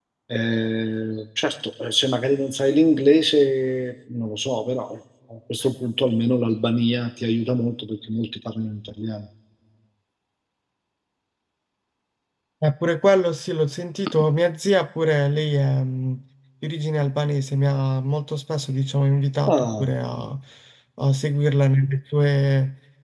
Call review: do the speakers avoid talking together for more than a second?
Yes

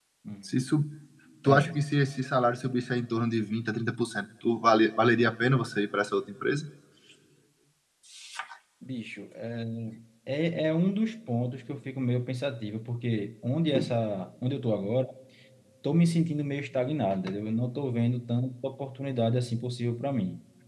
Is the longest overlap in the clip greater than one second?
No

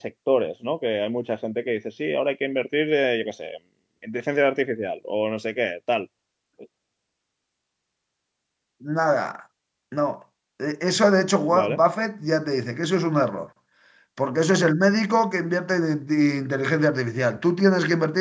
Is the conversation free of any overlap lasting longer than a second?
Yes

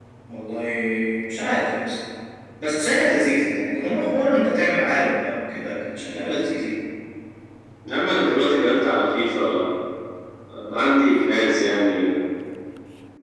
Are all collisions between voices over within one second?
Yes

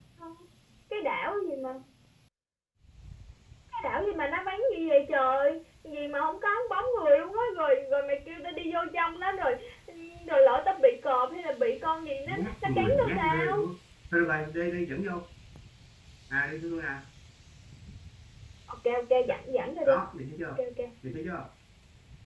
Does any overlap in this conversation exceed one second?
Yes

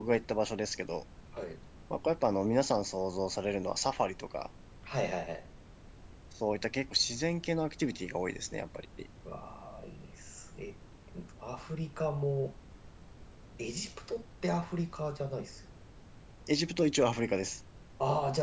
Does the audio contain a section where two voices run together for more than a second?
No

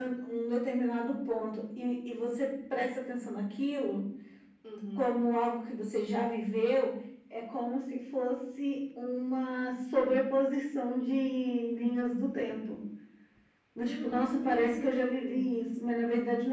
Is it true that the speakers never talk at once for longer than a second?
No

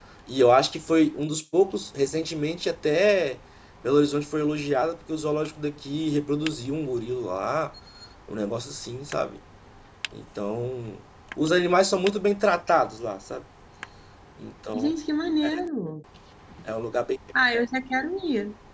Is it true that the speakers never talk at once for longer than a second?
Yes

